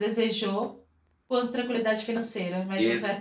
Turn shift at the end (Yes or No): Yes